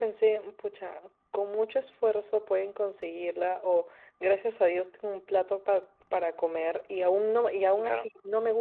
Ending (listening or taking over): listening